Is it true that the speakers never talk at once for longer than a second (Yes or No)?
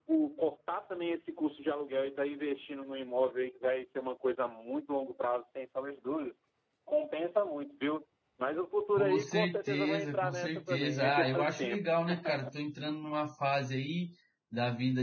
No